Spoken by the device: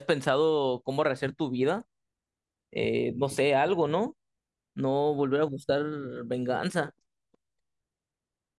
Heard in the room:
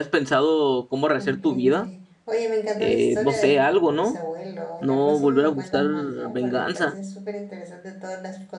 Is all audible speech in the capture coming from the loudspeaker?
No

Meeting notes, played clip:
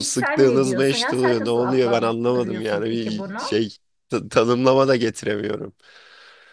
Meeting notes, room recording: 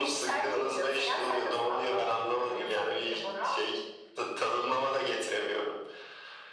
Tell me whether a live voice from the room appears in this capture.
No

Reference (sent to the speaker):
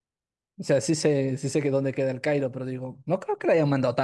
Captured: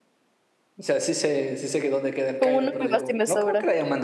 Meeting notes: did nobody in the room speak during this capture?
No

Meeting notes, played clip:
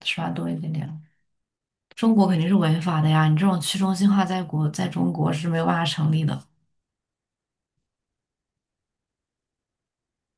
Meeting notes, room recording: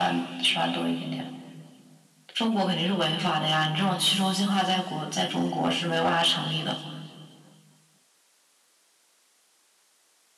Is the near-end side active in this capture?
No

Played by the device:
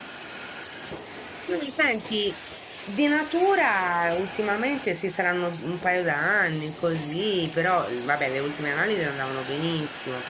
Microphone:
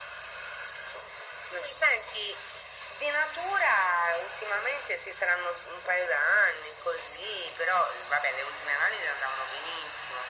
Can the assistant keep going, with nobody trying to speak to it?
Yes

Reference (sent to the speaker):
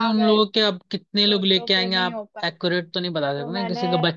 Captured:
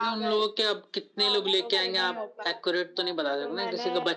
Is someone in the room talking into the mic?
Yes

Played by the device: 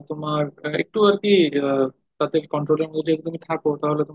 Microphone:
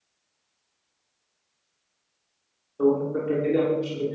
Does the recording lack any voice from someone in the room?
No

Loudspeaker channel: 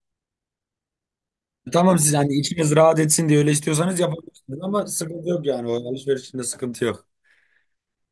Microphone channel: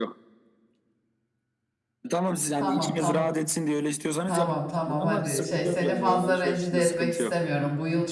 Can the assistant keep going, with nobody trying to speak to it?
No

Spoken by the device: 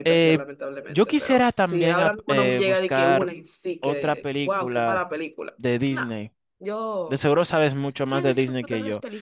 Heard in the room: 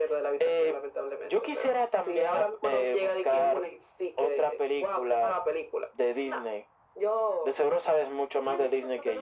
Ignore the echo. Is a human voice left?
No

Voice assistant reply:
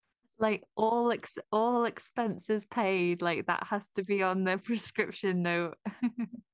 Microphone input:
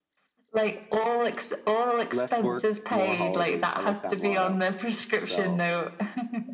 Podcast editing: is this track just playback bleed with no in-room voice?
No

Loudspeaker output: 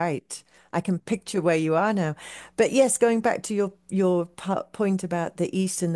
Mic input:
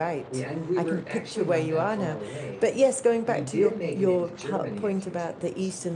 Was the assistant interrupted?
Yes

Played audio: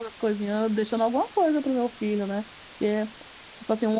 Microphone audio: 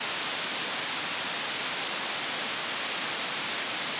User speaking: No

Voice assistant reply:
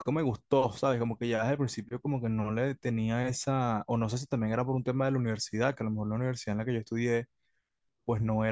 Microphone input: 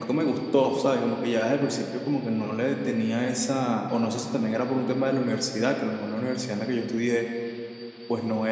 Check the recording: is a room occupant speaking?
No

